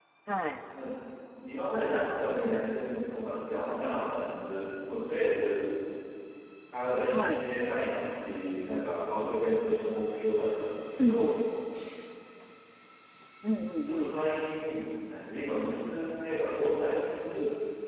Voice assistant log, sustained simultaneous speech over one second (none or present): none